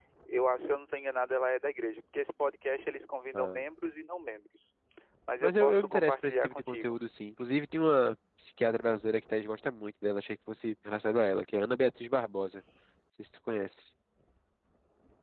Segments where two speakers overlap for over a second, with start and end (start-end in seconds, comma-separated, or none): 5.4-7.0